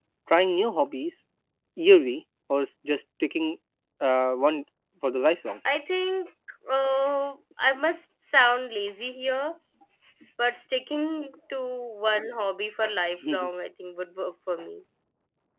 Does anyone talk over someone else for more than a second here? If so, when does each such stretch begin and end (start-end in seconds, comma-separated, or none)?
none